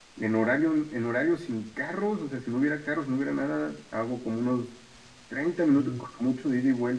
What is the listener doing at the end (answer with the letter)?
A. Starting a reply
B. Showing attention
B